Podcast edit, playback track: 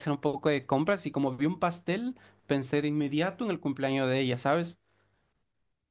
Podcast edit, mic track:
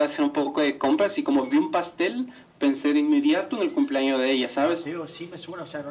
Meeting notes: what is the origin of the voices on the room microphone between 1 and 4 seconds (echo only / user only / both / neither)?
echo only